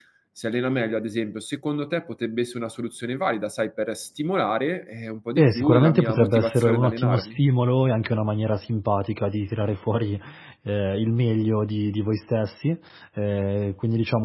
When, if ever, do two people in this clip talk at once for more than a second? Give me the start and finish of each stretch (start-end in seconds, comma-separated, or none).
5.4-7.4